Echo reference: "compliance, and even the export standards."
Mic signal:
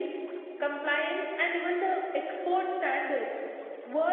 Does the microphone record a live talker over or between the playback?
No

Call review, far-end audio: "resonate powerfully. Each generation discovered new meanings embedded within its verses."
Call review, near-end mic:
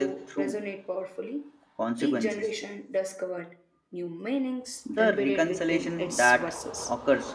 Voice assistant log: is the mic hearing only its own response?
No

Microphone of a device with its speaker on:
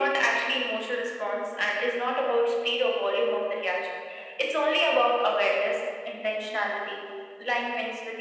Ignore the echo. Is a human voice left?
No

